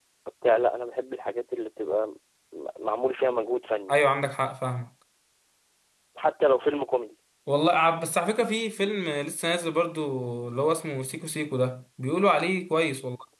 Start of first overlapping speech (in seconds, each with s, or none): none